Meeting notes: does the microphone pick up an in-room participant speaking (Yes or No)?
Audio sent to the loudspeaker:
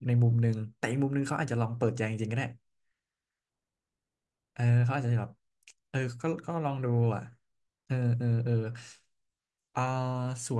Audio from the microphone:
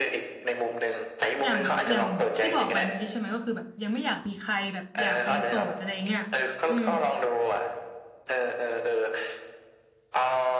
Yes